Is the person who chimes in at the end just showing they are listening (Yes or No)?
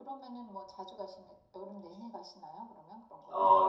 No